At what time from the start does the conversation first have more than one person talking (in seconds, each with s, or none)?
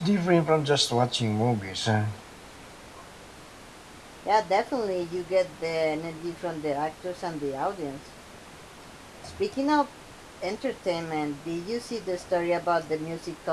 none